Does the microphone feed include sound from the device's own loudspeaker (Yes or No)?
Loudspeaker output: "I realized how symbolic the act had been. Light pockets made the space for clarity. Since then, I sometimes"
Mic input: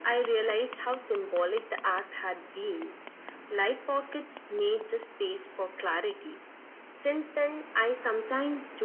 Yes